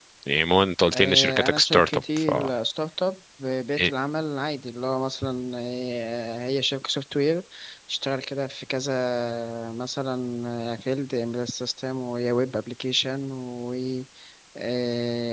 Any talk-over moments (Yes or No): Yes